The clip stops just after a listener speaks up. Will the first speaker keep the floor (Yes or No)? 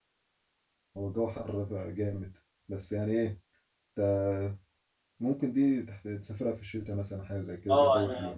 No